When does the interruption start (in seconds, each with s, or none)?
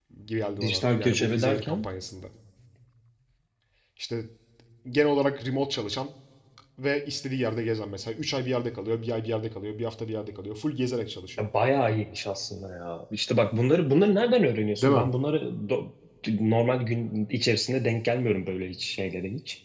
0.6 s